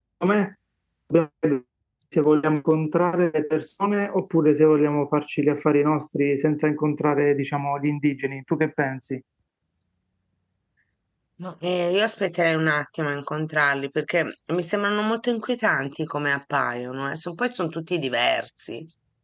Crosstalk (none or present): none